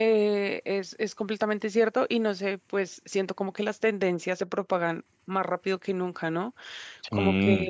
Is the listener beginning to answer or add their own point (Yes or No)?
No